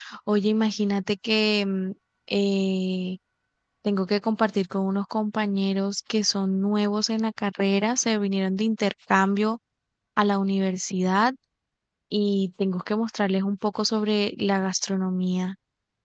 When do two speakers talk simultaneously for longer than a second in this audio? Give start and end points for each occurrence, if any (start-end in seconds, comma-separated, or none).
none